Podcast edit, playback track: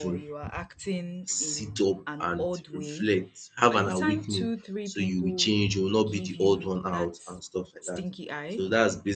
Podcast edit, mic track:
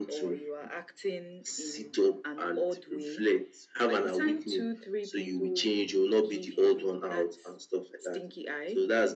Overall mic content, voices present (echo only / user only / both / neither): echo only